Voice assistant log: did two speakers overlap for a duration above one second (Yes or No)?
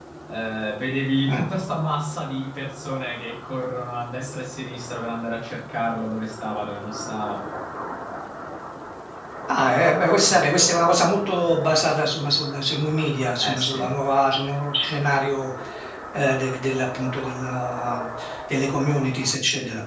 No